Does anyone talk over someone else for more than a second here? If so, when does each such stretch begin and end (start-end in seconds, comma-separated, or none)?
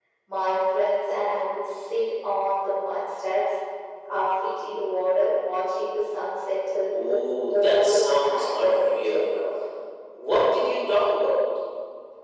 6.9-9.4